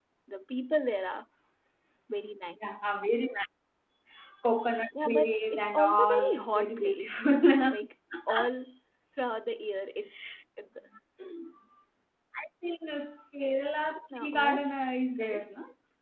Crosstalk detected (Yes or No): Yes